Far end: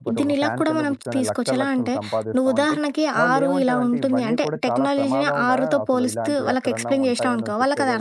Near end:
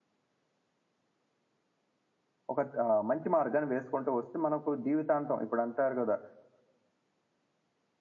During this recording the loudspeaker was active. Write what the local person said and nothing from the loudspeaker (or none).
ఒక ఆహ్, మంచి మార్గాన్ని వేసుకుంటూ వస్తే మనకు జీవితాంతం ఇప్పుడు అంటారు కదా!